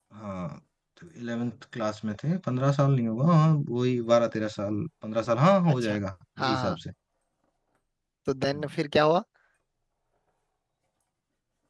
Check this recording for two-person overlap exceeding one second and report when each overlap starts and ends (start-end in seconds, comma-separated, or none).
none